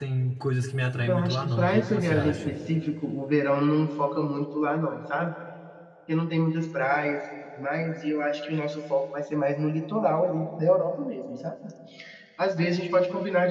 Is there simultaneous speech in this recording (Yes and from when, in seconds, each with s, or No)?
Yes, from 1.0 s